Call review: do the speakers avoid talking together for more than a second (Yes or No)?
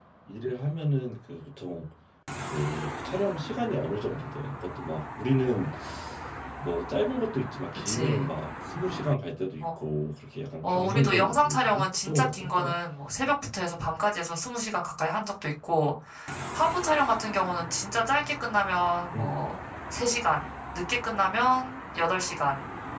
No